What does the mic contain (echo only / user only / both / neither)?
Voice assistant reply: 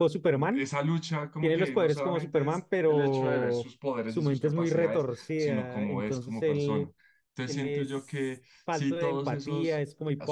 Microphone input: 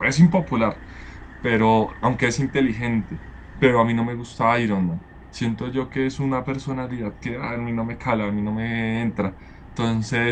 user only